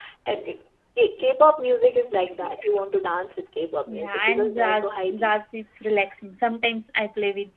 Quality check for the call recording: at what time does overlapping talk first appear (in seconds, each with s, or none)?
3.9 s